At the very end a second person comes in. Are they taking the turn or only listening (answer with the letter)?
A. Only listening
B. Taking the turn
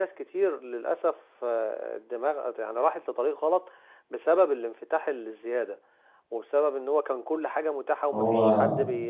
A